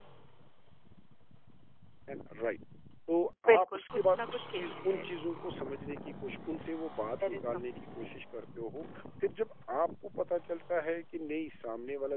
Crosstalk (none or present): present